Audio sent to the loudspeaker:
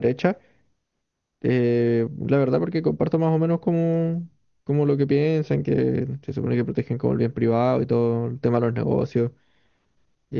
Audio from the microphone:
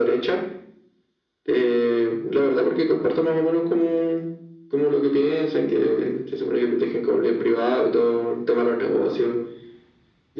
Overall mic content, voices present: echo only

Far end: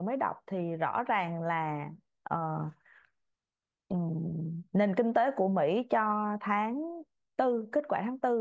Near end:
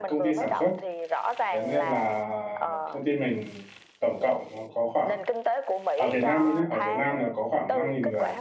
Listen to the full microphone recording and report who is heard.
both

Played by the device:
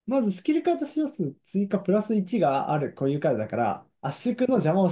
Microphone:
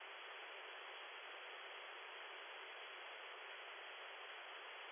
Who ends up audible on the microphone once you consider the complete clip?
neither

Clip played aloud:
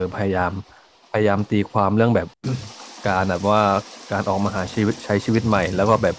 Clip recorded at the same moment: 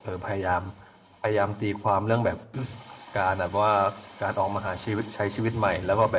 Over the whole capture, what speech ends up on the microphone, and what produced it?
echo only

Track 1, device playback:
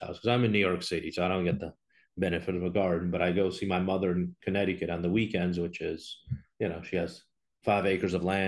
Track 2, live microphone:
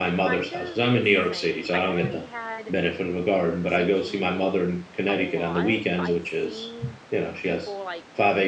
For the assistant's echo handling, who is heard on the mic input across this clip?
both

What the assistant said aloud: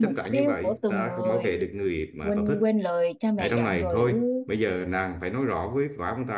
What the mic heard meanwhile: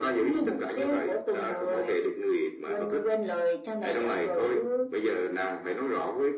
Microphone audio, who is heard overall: echo only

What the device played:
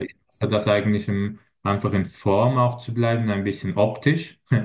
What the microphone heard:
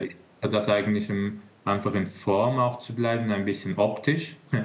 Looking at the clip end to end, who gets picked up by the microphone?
echo only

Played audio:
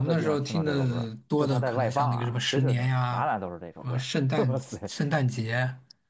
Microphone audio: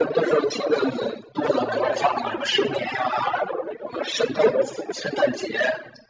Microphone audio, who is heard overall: both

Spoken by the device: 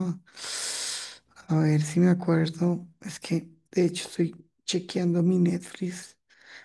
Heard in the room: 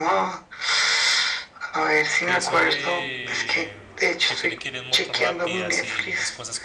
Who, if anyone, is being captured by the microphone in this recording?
both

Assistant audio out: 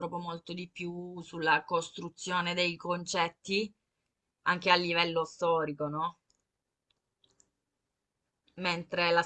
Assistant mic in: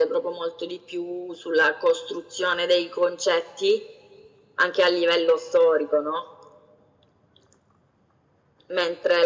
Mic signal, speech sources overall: echo only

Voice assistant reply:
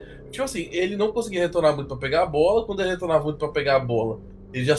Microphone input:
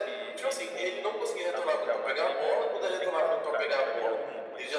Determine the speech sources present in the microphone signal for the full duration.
both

